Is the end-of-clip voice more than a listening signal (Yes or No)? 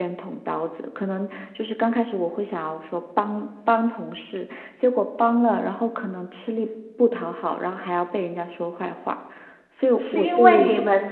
Yes